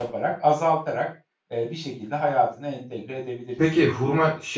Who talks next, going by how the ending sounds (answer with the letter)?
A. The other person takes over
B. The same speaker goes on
A